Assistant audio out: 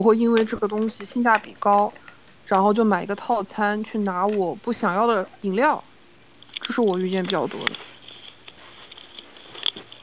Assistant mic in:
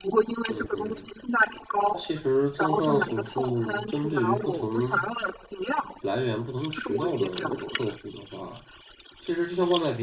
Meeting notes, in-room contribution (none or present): present